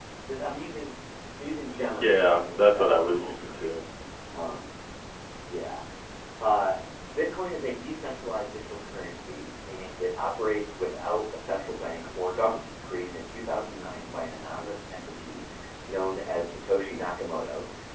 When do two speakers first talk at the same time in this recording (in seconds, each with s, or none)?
2.0 s